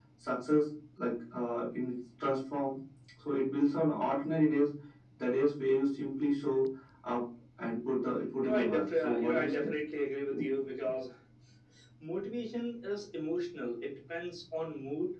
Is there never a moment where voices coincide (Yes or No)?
No